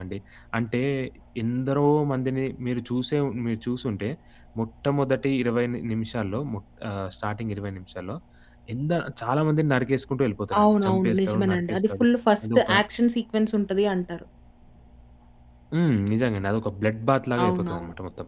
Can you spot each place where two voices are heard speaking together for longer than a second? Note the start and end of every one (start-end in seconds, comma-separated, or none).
10.6-12.0